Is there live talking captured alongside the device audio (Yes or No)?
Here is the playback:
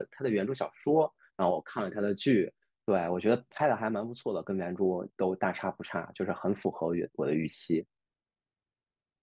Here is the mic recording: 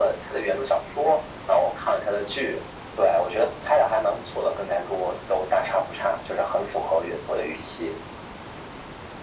No